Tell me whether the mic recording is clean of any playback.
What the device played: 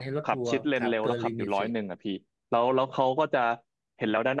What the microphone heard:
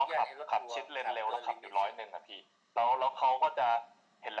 No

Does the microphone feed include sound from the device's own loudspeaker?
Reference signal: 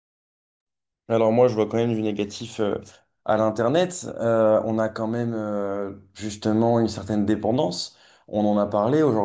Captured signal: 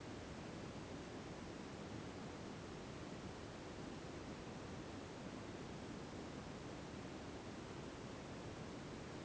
No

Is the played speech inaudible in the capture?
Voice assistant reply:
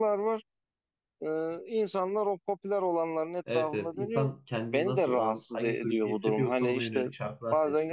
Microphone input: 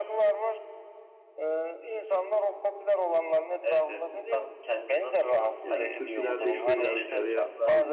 No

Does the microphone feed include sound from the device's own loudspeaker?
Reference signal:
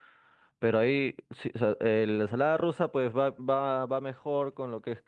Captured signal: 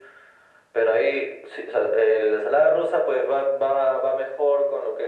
Yes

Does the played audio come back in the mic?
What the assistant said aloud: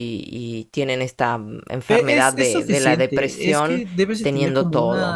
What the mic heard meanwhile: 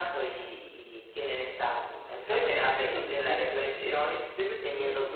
Yes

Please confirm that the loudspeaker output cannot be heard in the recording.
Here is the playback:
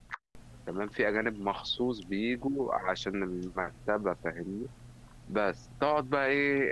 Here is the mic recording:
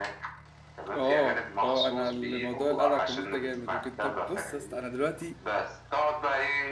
No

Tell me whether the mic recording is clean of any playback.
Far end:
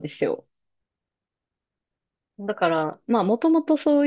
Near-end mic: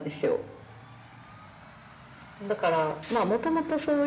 No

